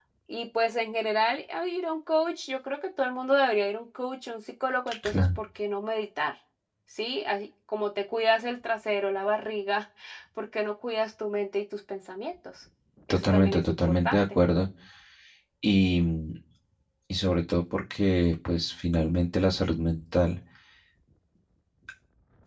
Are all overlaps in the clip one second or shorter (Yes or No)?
No